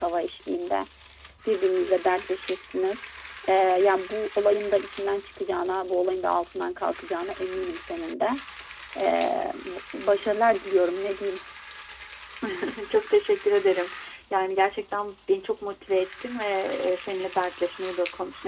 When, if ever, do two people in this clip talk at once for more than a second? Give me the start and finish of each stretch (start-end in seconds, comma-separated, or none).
none